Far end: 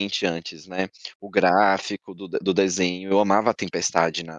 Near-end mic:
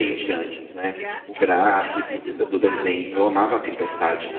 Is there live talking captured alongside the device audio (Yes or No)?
Yes